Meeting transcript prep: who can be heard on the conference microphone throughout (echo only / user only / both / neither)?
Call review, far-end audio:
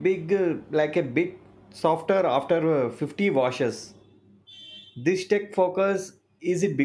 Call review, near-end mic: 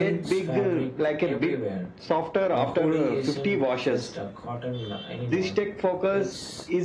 both